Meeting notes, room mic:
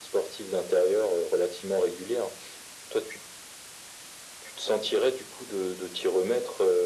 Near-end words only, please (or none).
none